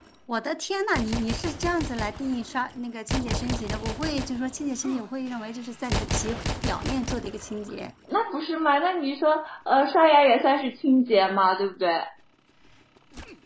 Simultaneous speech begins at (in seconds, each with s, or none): none